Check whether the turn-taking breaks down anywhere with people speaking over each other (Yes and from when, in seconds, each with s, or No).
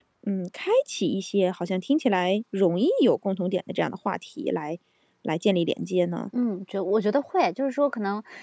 No